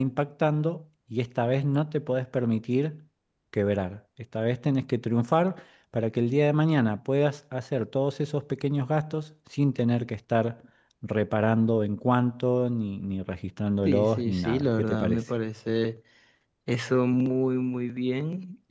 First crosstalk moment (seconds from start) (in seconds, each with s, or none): 13.8 s